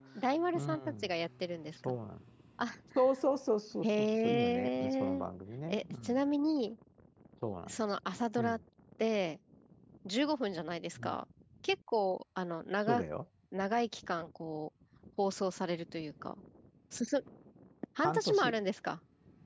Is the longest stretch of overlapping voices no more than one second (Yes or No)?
No